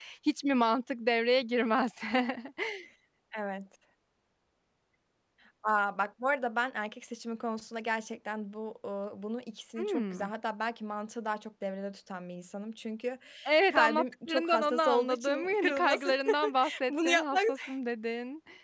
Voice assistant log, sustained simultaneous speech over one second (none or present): present